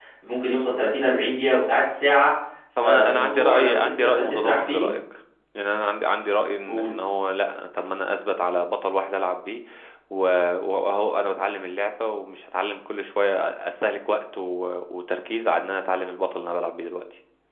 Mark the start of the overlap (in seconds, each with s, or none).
2.8 s